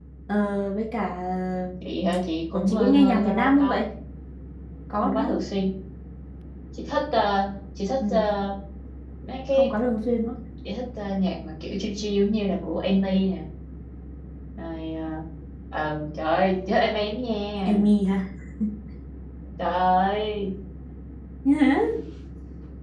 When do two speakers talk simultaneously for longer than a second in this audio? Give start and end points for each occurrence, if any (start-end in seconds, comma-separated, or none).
2.5-3.8